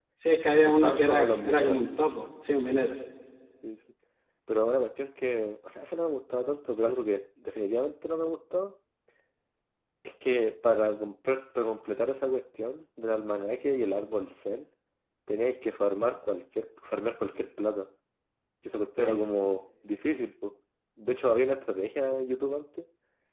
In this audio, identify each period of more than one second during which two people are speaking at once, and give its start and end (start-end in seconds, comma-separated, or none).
0.5-1.8